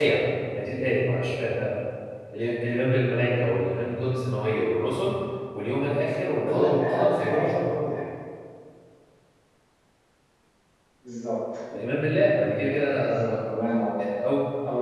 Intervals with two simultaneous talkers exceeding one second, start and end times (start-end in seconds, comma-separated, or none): 6.4-7.7